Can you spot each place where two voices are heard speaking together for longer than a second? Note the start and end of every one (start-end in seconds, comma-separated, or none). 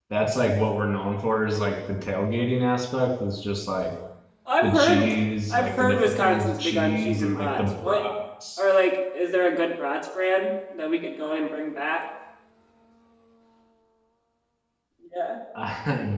5.5-8.1